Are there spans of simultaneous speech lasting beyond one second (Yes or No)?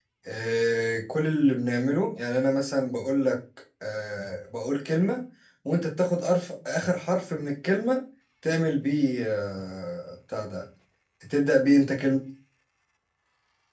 No